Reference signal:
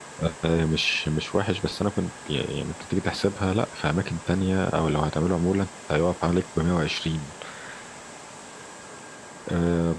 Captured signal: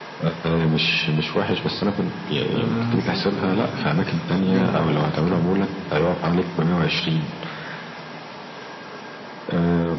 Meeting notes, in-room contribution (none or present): present